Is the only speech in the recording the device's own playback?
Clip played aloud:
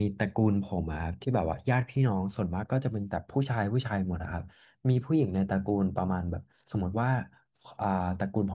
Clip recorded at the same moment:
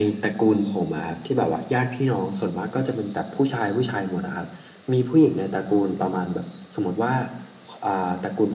Yes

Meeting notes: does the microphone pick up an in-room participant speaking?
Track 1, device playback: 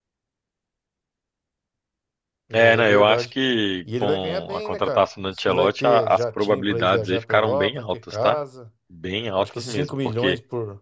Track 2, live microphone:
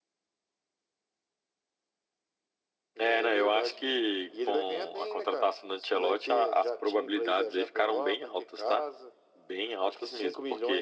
No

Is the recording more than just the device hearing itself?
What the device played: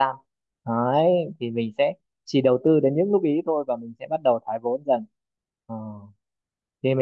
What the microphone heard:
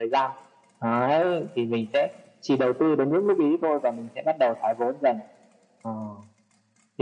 No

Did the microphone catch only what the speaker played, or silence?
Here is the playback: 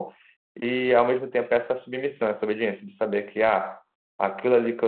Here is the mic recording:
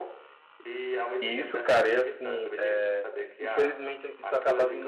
No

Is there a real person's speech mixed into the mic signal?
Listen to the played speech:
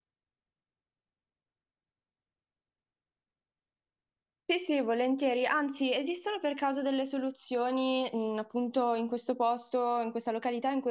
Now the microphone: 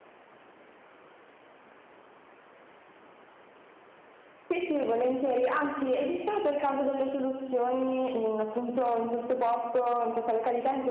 No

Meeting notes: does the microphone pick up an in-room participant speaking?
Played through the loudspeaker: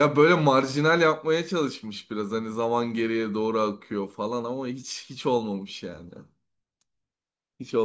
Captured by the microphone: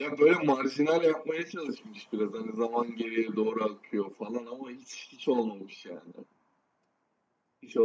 No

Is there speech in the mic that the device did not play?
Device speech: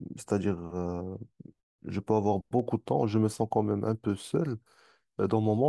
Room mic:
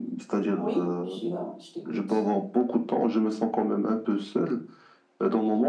Yes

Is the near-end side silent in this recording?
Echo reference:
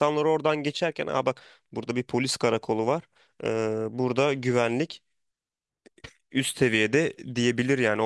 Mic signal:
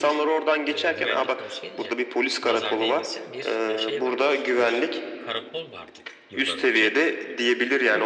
No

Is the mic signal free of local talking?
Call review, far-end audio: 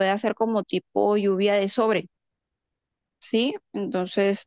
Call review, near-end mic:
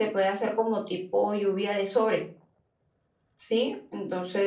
Yes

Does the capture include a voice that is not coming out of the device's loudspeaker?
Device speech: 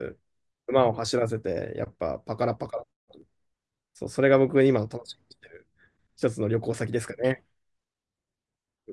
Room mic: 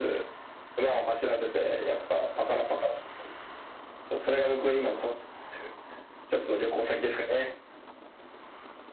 No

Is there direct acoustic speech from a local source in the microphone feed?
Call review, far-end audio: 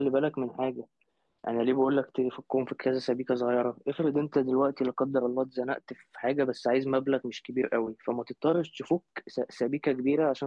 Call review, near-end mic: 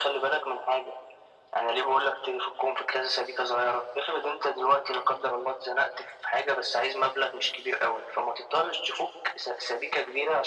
No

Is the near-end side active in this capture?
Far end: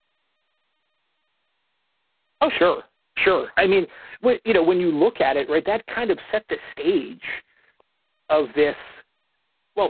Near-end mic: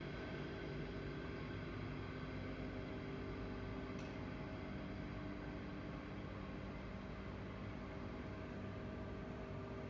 No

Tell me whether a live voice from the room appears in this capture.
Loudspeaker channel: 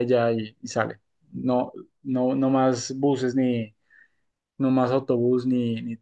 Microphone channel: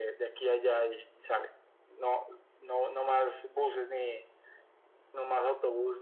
No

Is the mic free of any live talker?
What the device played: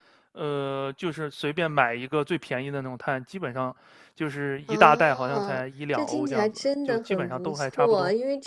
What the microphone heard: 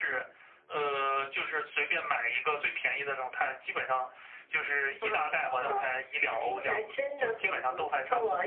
Yes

